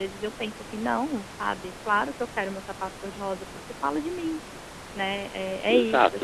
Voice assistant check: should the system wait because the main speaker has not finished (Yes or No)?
No